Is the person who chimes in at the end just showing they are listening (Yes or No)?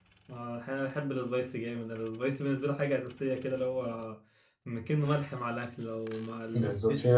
No